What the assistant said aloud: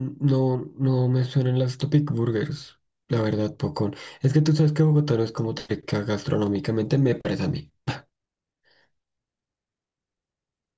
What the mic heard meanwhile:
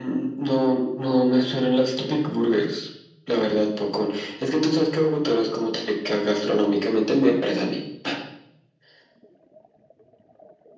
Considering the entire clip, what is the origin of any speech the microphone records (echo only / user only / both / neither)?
echo only